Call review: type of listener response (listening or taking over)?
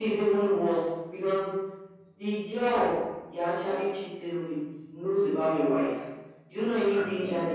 listening